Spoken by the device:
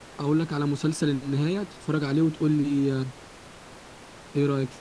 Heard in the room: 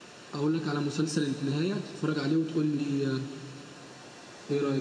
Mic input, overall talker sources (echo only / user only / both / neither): echo only